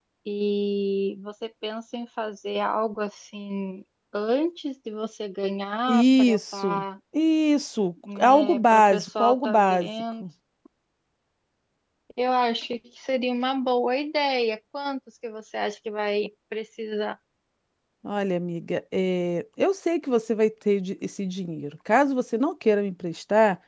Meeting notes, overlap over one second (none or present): present